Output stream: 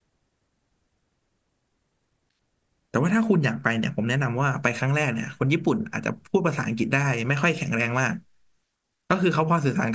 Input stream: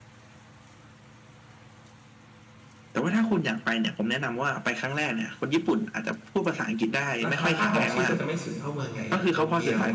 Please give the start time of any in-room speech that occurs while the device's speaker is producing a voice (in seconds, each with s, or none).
7.3 s